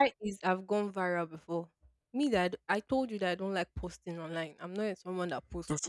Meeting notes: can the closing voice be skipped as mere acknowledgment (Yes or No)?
No